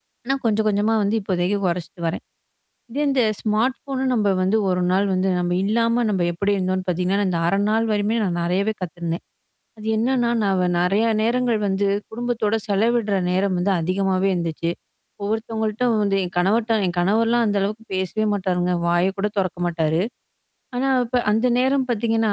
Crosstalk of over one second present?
No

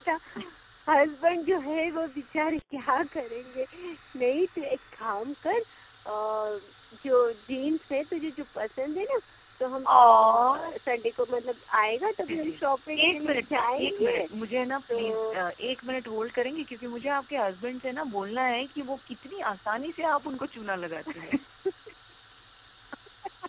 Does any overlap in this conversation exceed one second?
Yes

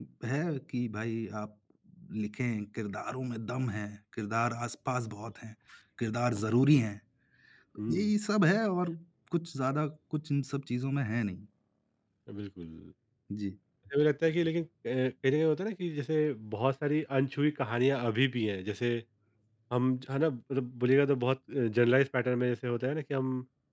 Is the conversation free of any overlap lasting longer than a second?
Yes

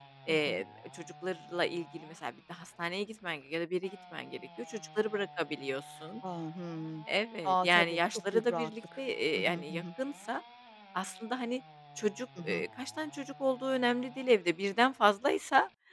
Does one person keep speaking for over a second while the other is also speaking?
Yes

